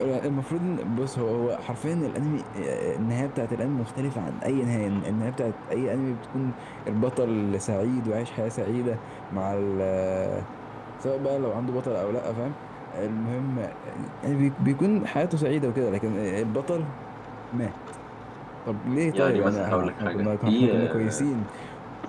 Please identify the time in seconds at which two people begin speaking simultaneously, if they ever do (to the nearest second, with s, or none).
19 s